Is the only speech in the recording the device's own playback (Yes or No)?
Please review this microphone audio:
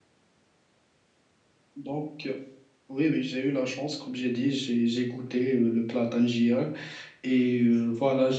No